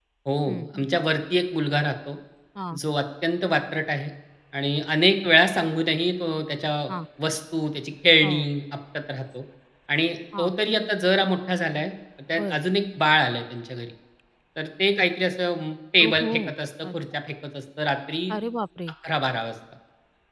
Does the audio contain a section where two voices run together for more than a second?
No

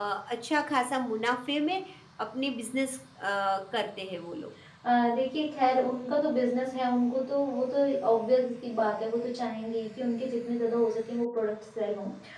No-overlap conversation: Yes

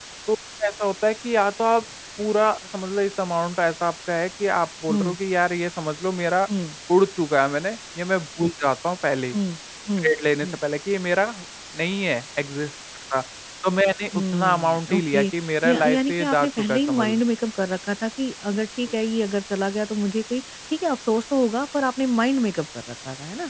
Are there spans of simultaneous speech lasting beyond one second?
Yes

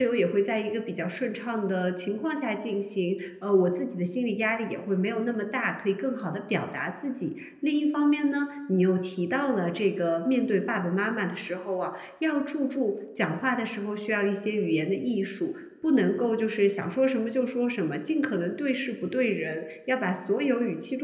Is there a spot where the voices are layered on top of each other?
No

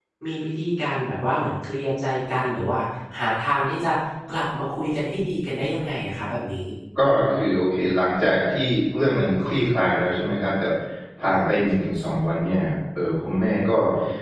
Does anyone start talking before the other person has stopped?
No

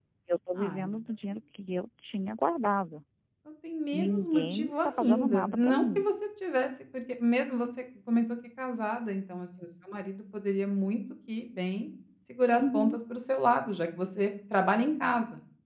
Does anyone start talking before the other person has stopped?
Yes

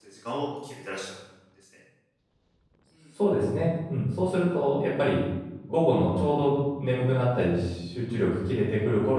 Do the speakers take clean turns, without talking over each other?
Yes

